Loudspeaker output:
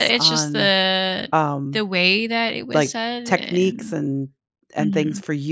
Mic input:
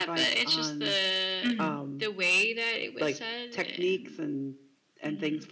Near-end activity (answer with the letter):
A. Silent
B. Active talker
B